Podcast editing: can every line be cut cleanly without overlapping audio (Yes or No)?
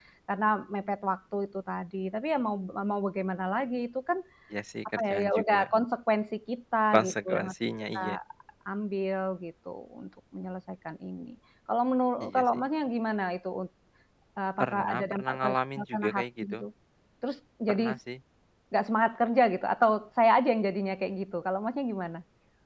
No